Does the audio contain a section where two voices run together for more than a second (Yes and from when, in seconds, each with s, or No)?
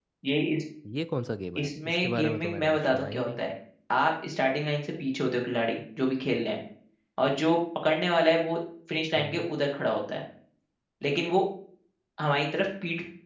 Yes, from 1.6 s